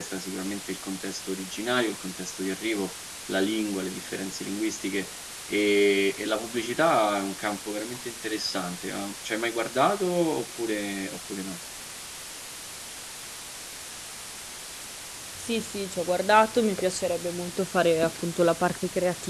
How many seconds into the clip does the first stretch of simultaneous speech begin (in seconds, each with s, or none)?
none